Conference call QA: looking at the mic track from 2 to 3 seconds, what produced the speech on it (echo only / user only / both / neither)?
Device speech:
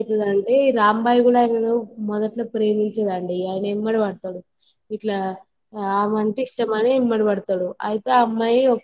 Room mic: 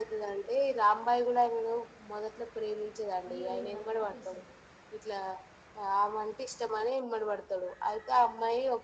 echo only